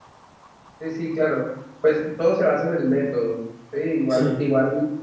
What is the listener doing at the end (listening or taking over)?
listening